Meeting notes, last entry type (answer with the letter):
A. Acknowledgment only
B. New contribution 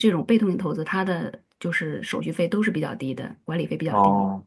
B